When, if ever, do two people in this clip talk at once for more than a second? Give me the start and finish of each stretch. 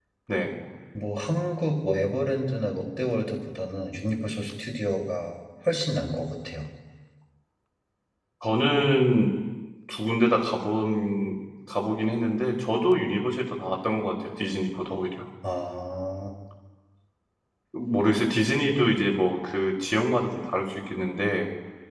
none

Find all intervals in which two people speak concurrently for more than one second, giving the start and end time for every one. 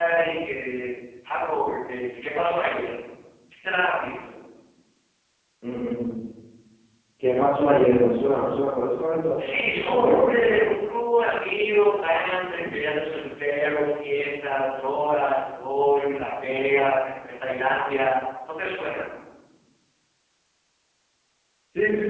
9.4-10.6

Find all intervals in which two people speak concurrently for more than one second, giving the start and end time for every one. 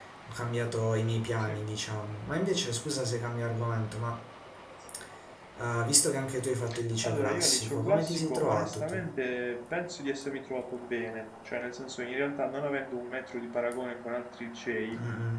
7.0-9.0

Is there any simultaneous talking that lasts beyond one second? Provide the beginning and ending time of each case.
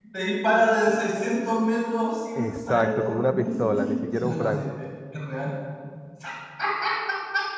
2.4-4.6

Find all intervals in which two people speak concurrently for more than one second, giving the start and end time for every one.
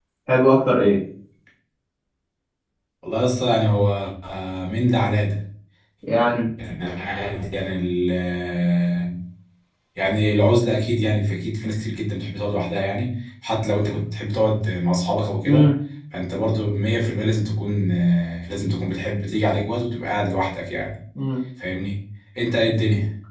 none

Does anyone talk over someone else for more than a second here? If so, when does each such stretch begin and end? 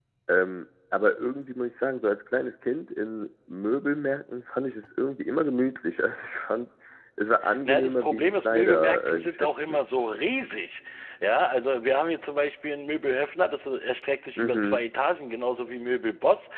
7.7-9.8

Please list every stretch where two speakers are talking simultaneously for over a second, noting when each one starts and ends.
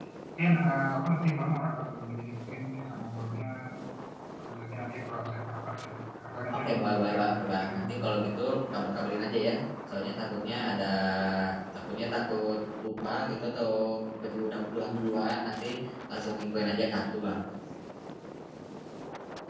6.5-8.1

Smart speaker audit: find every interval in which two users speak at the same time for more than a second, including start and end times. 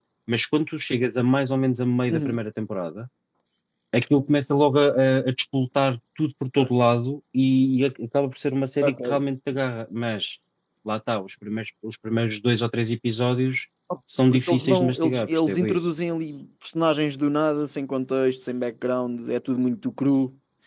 14.3-15.9

